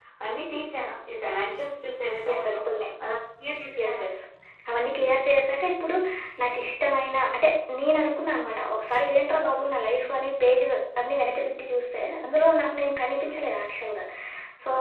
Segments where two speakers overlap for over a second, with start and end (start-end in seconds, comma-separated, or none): none